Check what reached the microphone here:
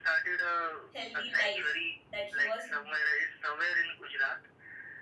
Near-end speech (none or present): present